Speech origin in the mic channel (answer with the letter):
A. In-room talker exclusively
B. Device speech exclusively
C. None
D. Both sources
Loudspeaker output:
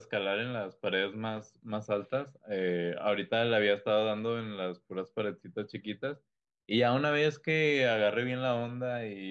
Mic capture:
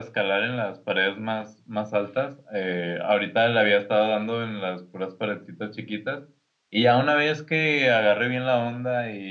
B